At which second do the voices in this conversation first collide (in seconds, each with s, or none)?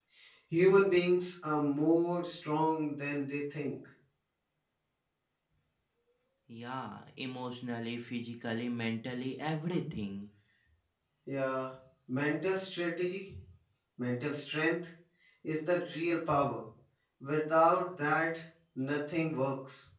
none